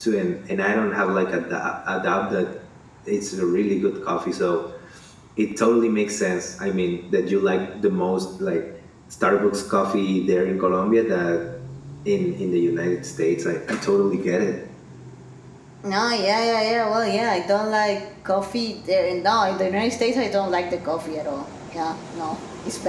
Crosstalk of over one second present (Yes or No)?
No